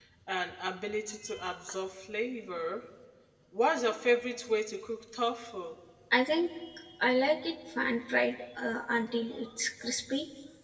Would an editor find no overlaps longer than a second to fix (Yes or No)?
Yes